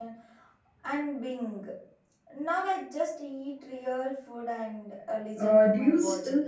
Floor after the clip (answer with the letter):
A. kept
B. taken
B